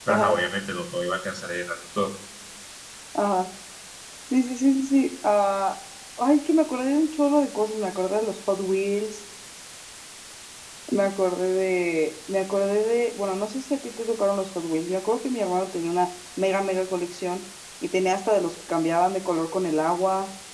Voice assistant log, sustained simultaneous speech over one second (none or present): none